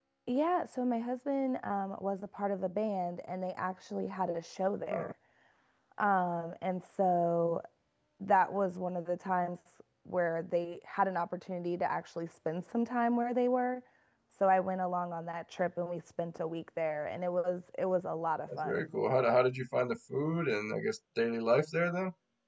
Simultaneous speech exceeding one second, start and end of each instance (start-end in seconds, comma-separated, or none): none